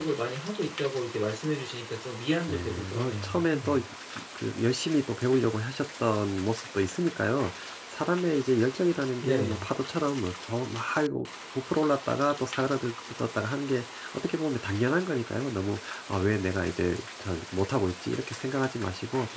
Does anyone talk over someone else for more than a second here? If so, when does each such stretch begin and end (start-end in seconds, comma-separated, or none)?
2.5-3.8